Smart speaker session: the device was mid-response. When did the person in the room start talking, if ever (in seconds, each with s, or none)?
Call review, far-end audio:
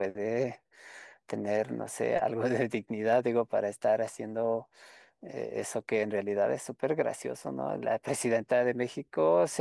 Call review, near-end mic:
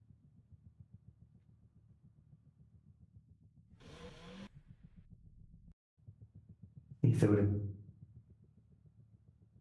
7.0 s